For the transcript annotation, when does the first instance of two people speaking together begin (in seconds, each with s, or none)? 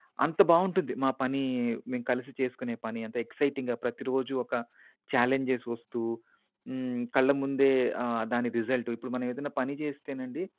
none